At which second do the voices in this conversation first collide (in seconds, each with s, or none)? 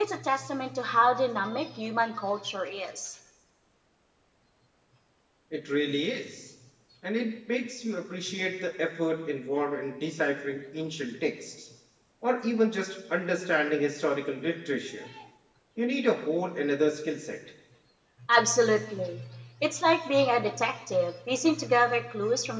none